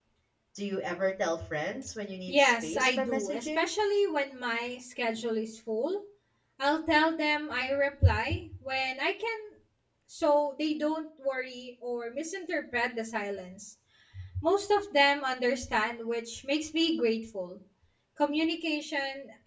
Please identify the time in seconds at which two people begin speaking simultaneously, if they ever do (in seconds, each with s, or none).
2.3 s